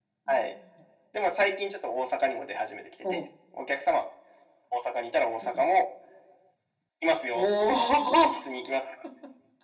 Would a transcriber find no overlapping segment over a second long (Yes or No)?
Yes